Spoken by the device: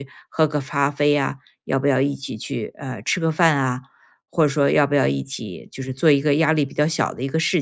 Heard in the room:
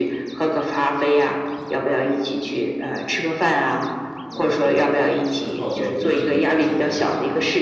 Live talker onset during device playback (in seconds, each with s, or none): 4.2 s